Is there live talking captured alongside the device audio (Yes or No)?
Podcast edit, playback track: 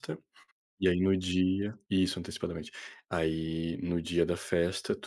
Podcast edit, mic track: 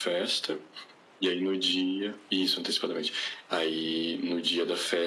No